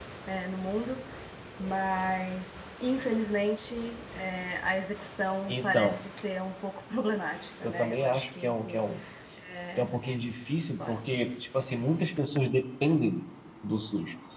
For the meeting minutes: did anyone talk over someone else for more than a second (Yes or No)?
Yes